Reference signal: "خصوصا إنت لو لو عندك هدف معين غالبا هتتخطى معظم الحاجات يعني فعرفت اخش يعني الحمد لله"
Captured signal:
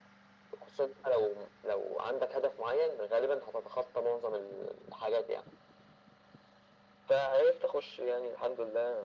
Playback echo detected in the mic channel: Yes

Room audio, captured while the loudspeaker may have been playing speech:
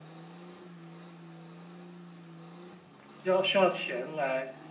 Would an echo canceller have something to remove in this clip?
No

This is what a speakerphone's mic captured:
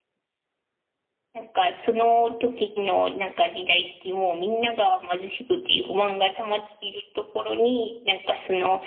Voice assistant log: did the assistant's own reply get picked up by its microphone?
No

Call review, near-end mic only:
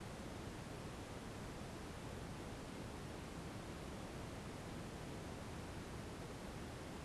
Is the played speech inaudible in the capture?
Yes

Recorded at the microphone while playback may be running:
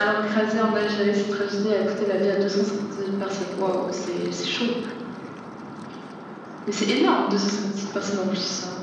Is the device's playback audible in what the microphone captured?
Yes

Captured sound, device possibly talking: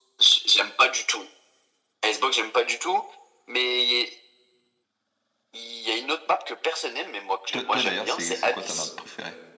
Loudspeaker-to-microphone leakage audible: Yes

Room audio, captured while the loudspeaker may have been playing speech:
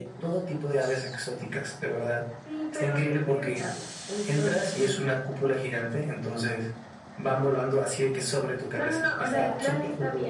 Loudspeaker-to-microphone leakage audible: Yes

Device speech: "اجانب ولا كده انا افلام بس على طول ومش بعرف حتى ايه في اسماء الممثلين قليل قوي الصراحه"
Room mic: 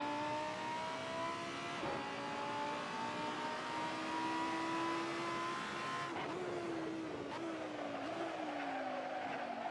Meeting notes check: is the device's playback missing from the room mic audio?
Yes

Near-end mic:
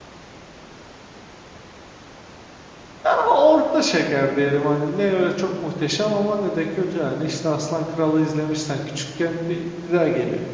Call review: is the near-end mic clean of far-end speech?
Yes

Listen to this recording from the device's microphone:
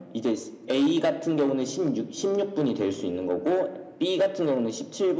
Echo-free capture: No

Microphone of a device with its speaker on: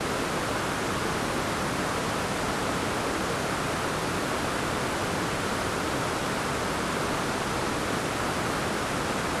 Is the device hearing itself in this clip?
No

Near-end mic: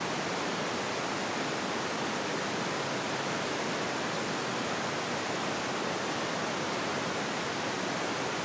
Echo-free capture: Yes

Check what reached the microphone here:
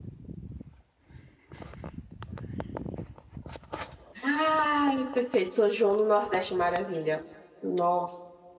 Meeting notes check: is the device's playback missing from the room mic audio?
Yes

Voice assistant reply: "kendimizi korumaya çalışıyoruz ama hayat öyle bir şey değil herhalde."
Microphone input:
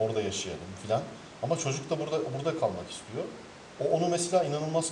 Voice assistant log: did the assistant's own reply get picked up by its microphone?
No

